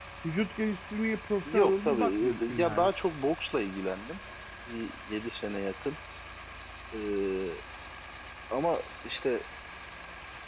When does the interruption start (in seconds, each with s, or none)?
1.4 s